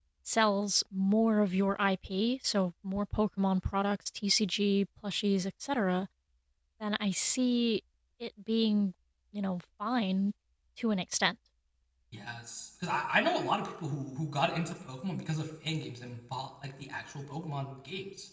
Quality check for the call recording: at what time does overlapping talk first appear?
none

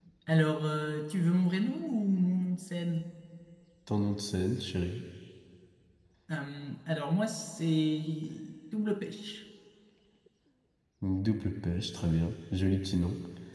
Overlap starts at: none

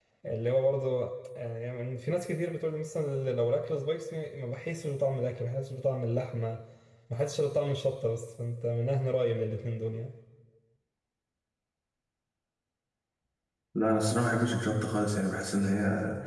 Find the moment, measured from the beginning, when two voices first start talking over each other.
none

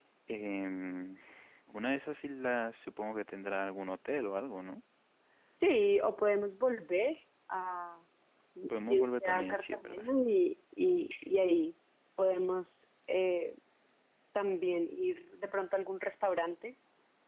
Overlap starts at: 9 s

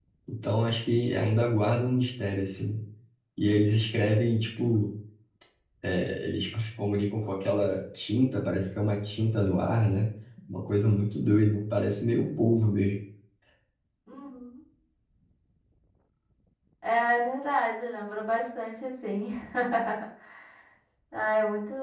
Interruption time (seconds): none

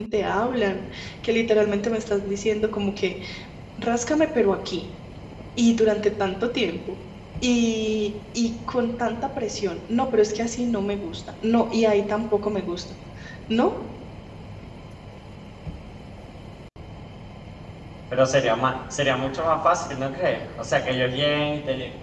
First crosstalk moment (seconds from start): none

